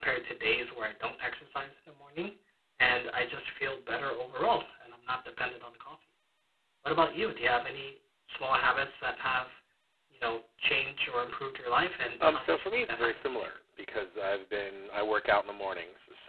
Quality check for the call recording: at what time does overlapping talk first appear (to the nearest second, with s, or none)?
12 s